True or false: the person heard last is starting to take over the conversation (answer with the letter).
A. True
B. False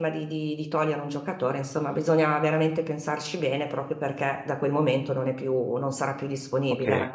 A